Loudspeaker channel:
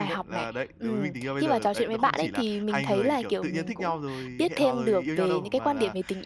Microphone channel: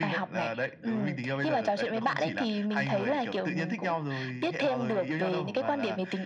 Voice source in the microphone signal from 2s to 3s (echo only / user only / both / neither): echo only